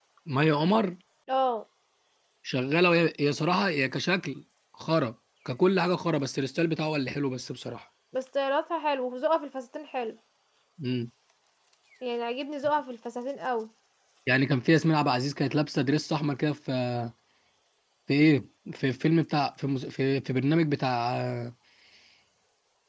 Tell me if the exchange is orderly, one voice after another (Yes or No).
Yes